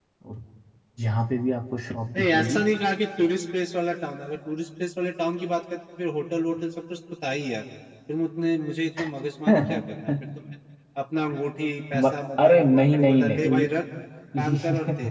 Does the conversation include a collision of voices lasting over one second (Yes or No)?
Yes